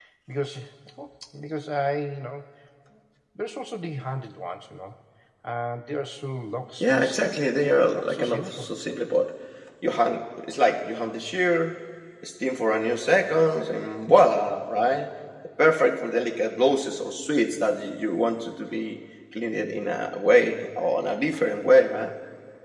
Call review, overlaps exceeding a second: present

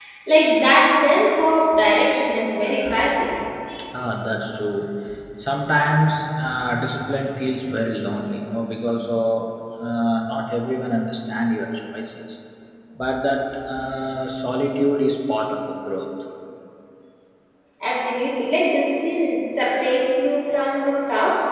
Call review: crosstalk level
none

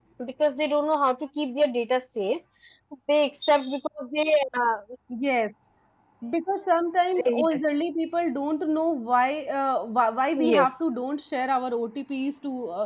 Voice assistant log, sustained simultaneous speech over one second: none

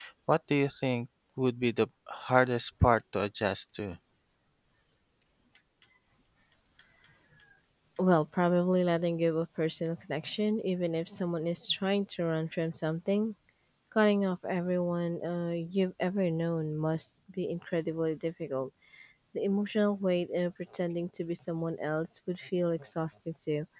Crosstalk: none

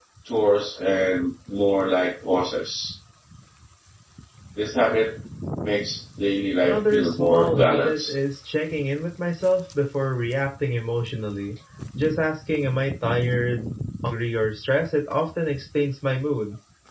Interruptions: present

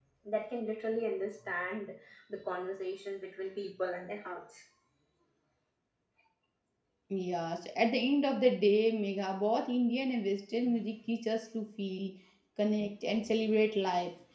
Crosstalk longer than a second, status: none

